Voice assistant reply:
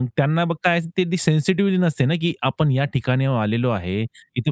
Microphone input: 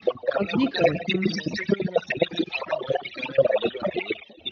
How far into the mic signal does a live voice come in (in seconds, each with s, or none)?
0.4 s